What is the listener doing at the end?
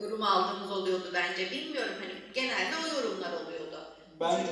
listening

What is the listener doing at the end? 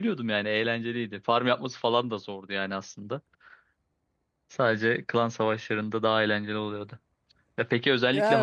listening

